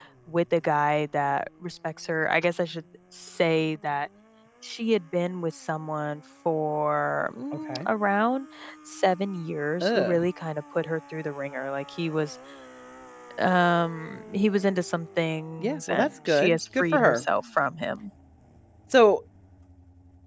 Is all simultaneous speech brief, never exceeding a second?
No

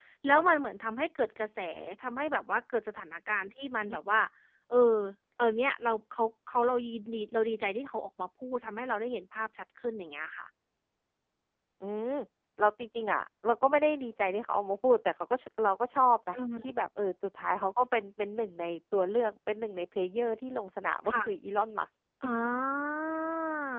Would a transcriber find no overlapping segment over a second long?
Yes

